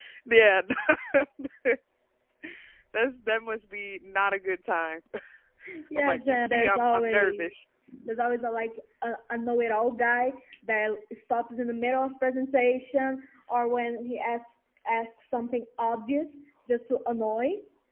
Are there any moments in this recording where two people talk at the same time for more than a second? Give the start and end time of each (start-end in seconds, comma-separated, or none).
6.0-7.6